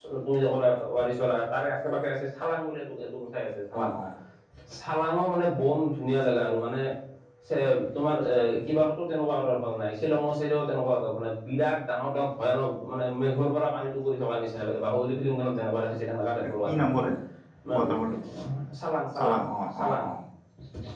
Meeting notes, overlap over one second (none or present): none